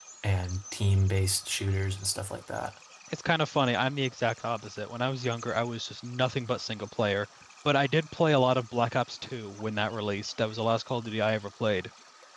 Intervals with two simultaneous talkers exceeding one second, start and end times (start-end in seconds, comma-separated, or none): none